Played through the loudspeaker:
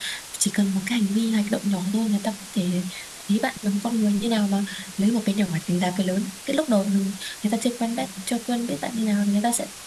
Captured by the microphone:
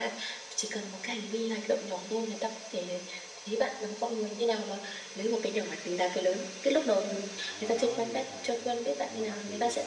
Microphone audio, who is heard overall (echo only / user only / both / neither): both